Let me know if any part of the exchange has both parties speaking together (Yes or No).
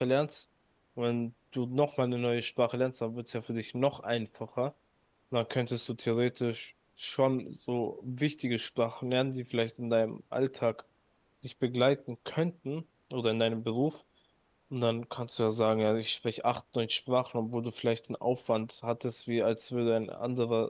No